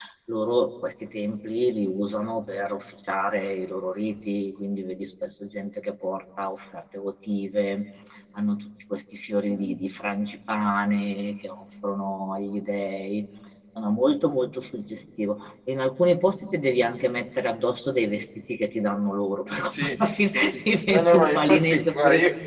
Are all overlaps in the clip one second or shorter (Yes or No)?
No